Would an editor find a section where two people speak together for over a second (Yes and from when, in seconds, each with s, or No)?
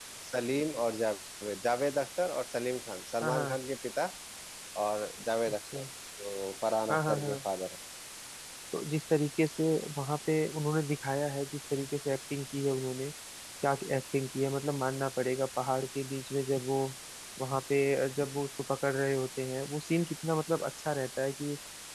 No